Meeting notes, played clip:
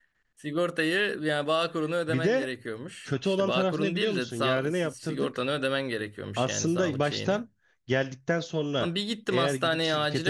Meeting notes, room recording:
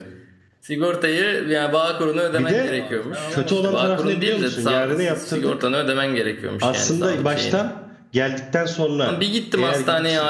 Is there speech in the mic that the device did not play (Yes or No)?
Yes